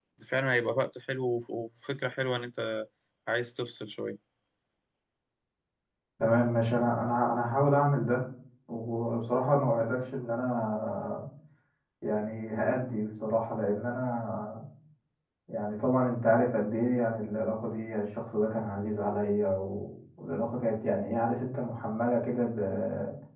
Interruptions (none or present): none